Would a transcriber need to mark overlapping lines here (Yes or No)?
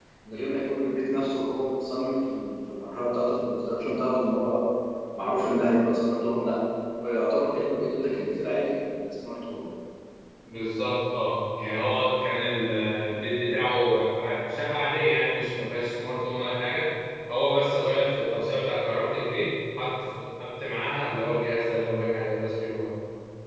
No